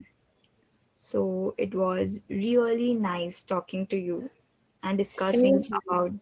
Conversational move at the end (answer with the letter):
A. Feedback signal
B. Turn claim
A